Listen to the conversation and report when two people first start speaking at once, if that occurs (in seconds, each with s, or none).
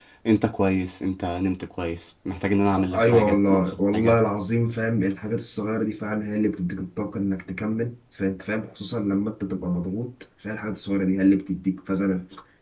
2.8 s